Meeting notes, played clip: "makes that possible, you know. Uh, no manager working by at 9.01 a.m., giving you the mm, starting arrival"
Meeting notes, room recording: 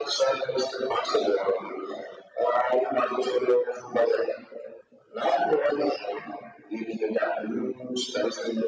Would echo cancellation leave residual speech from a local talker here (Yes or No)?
No